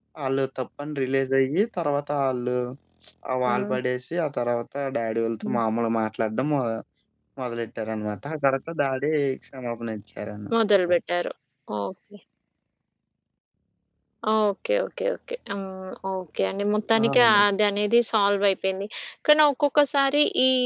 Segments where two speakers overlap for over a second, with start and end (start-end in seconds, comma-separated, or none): none